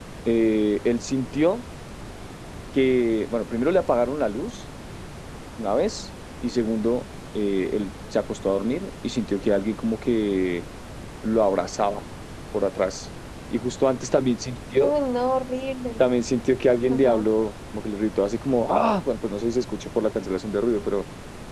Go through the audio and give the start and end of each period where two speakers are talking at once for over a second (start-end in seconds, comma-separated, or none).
none